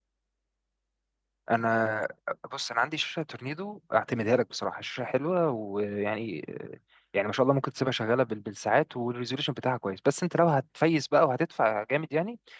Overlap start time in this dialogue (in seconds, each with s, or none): none